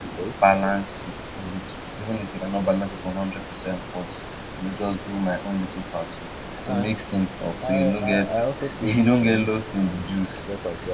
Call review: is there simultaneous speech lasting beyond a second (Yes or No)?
Yes